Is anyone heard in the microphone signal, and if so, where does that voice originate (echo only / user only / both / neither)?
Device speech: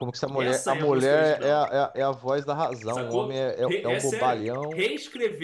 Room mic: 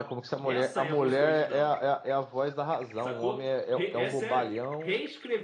echo only